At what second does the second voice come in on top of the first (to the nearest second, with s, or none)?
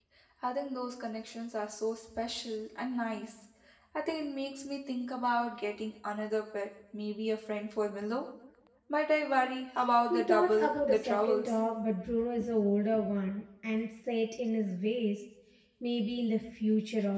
10 s